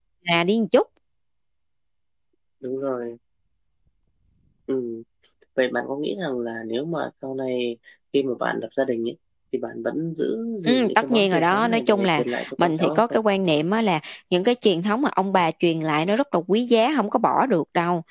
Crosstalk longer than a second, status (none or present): present